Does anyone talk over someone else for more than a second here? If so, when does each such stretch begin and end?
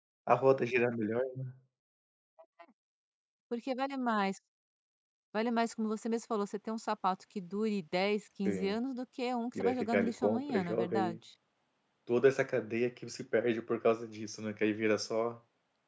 9.6-11.2

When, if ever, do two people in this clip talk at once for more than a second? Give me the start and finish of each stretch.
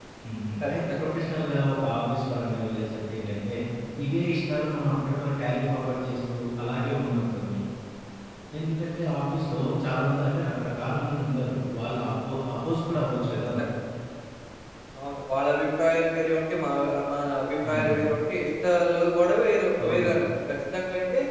none

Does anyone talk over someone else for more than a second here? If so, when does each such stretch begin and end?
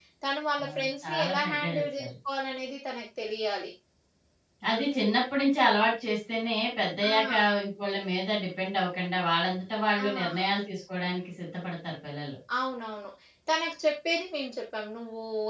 0.6-2.0

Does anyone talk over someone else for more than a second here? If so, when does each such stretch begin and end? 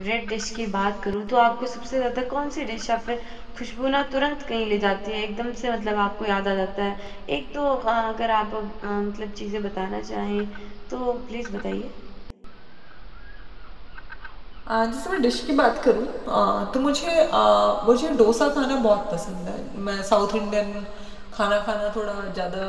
none

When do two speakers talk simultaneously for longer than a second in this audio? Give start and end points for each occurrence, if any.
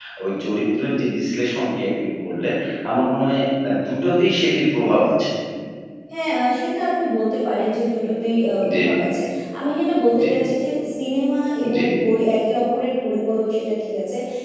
none

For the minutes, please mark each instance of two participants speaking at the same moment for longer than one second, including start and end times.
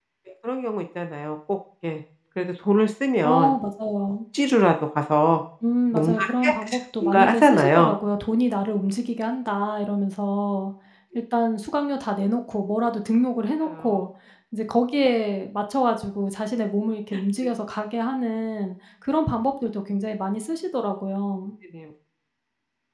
5.9-7.9

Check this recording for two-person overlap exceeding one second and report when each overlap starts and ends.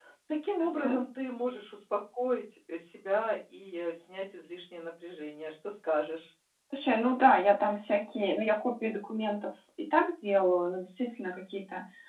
none

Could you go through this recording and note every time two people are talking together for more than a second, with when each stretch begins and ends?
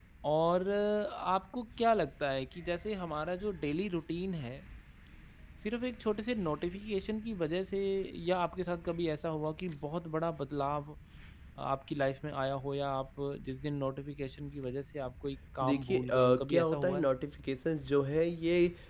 15.6-17.1

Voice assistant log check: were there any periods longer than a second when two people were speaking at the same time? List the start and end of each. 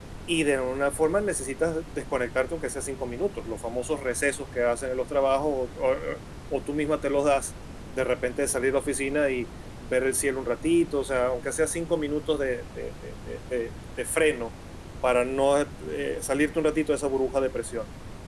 none

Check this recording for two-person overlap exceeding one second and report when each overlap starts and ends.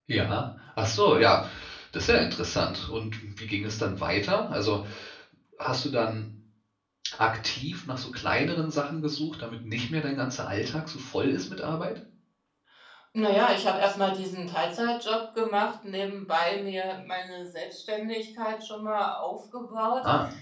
none

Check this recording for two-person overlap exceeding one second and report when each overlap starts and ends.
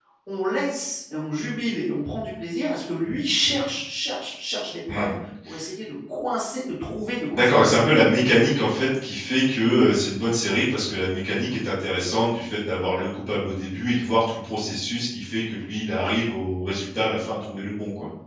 none

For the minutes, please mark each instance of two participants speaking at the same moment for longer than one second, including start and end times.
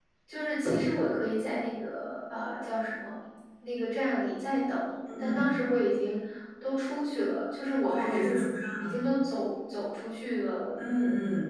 none

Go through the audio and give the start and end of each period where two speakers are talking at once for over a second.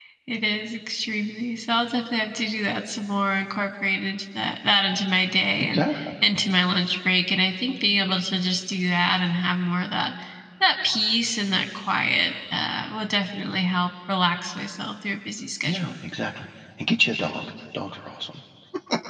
none

